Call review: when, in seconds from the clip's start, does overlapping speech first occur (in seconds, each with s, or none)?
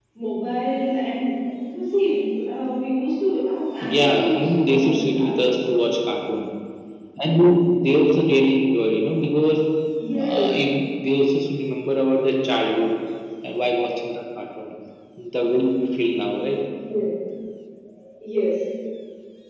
3.8 s